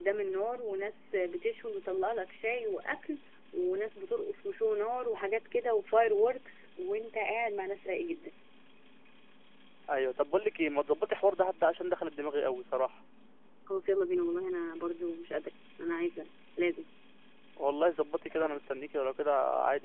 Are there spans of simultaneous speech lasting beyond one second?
No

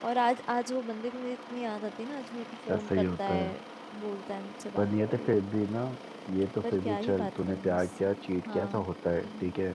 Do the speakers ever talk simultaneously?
Yes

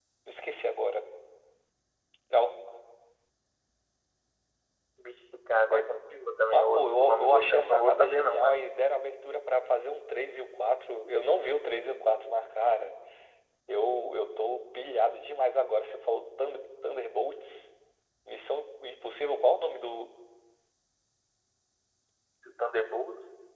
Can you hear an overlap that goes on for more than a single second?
Yes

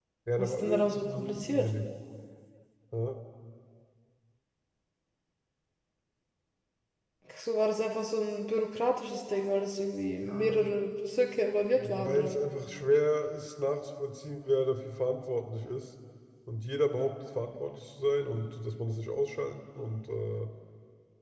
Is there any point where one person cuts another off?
Yes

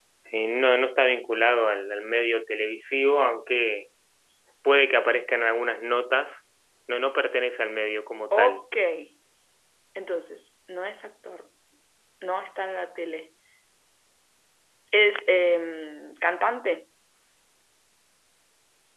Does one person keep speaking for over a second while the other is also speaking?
No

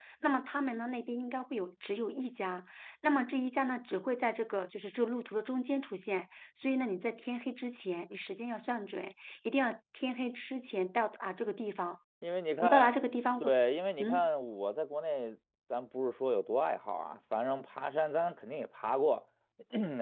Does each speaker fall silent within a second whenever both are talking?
Yes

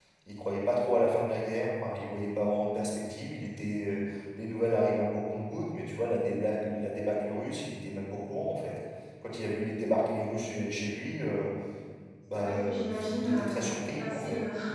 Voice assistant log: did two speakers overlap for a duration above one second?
Yes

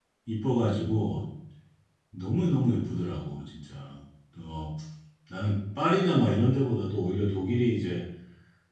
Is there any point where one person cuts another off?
No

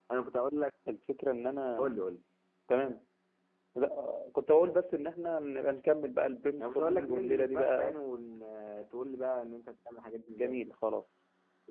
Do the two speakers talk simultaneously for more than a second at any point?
Yes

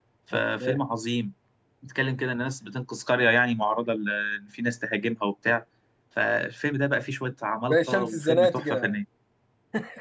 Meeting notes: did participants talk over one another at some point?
Yes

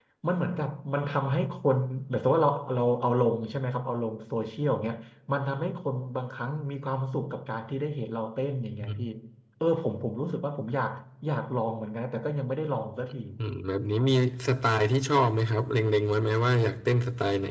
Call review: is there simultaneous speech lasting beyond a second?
No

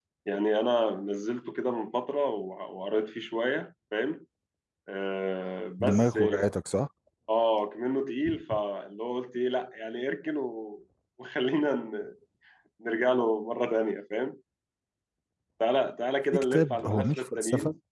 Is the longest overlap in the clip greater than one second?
Yes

